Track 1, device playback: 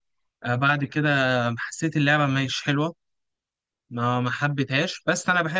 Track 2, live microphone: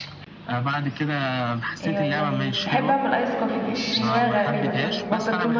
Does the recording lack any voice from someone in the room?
No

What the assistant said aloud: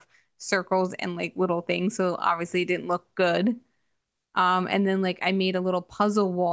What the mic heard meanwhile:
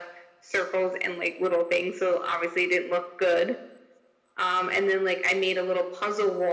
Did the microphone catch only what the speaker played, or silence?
Yes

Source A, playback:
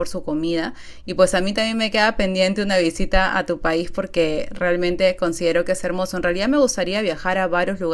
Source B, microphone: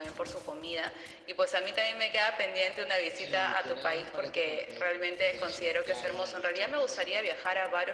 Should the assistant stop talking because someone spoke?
Yes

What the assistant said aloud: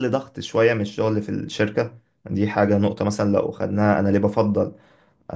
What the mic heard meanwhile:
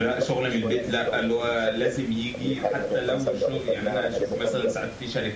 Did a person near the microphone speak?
Yes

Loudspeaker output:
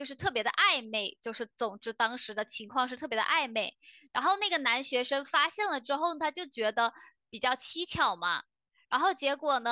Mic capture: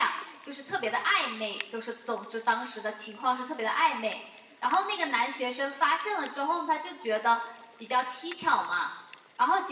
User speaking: No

